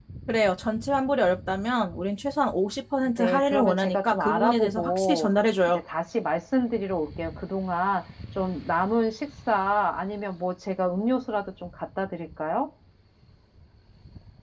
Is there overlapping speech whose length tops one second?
Yes, from 3.0 s

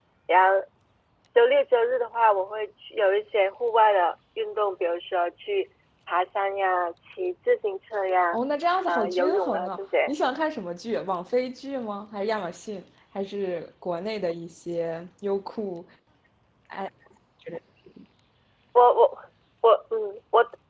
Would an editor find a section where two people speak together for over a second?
Yes, from 8.9 s

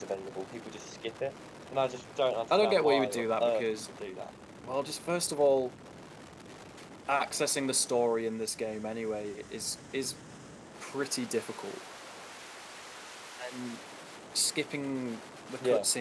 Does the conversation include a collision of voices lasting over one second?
Yes, from 2.5 s

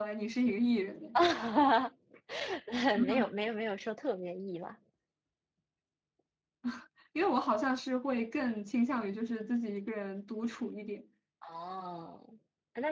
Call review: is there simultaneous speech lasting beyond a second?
No

